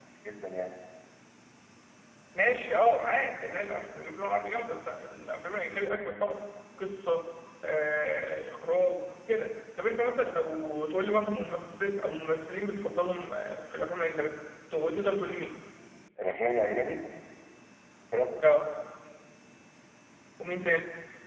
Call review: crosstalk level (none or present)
none